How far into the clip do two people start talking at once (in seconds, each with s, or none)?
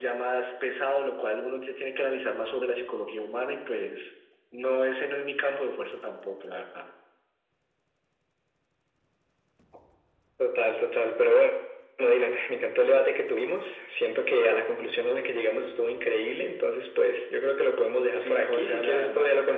18.2 s